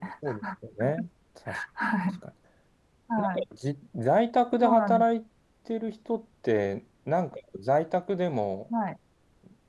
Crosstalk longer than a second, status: none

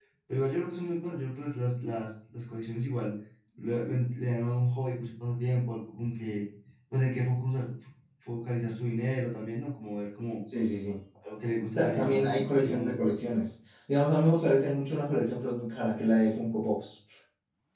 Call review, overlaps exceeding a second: present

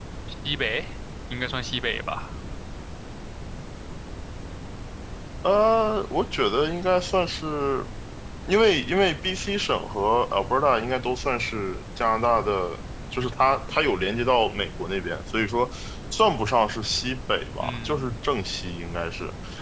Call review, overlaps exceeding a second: none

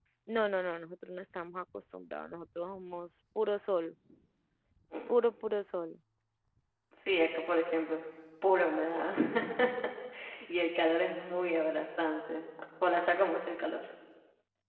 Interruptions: none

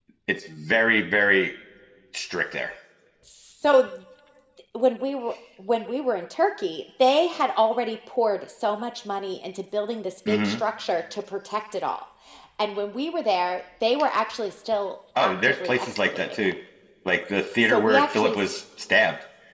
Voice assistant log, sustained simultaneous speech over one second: present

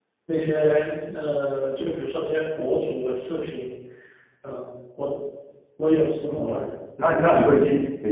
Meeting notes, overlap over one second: none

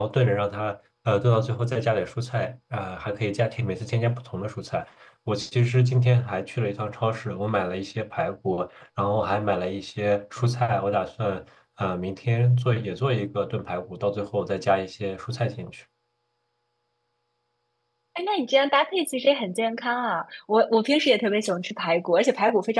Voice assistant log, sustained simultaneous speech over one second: none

